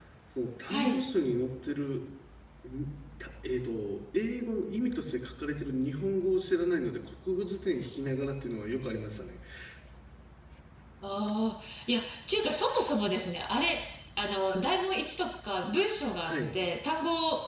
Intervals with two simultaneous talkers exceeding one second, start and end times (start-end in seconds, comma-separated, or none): none